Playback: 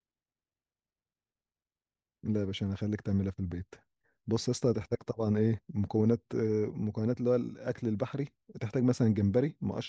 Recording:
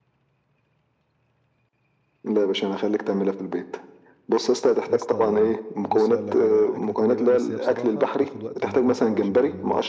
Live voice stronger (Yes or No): No